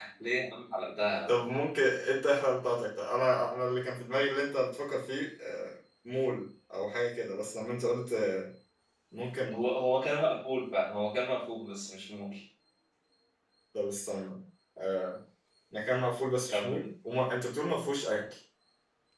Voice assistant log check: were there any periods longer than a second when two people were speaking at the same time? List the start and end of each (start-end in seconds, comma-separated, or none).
none